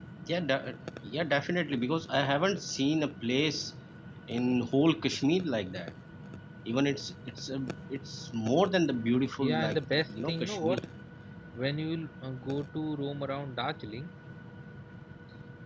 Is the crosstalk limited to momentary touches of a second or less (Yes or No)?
No